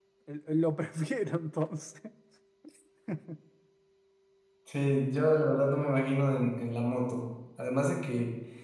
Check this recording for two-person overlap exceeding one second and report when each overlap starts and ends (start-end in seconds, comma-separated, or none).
none